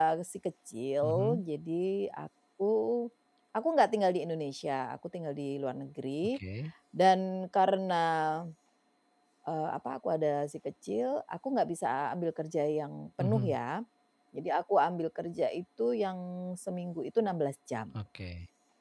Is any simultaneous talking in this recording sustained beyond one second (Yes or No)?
No